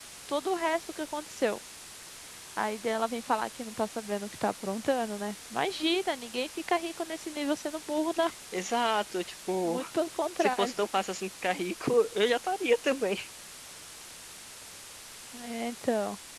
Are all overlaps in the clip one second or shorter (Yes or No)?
Yes